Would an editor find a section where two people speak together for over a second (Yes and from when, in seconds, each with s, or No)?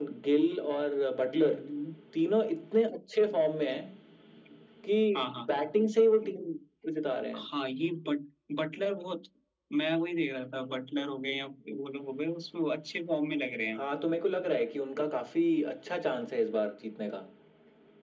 No